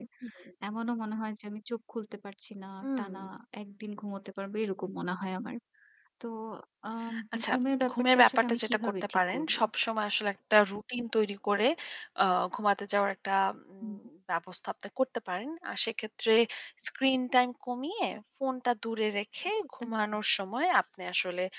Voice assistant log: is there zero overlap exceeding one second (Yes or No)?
No